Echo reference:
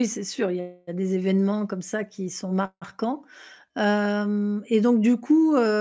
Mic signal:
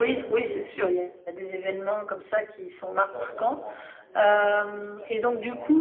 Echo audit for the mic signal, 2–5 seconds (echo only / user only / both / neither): both